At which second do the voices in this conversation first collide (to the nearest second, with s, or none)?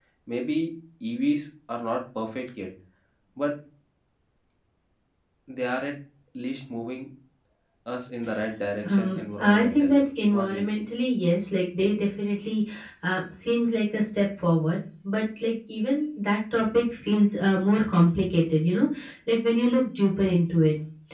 9 s